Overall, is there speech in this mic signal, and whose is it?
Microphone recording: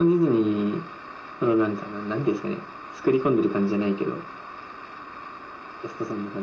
echo only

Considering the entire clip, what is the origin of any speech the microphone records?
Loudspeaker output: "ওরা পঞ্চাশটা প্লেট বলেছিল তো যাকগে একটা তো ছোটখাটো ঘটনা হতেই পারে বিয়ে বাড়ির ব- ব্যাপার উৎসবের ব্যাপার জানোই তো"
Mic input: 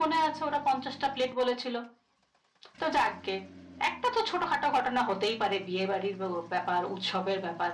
echo only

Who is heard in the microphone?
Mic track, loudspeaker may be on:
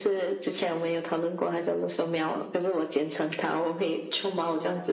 echo only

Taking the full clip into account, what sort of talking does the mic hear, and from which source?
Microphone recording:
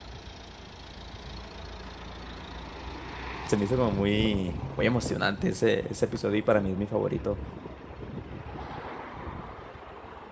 user only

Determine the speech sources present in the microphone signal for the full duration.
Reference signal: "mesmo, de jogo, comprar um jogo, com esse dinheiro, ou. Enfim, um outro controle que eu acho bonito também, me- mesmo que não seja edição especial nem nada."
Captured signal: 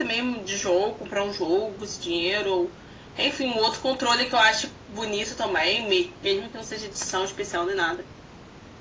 echo only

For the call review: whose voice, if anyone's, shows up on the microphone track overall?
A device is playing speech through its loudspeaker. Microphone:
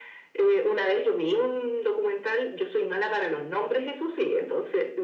echo only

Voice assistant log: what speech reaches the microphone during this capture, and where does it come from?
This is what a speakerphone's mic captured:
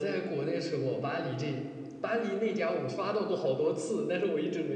echo only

